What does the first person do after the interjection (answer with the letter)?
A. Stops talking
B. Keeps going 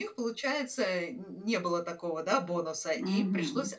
B